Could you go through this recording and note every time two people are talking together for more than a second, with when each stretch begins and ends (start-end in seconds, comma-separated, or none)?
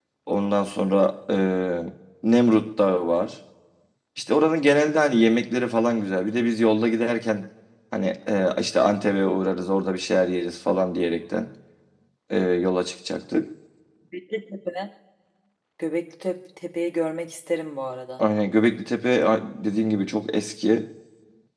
none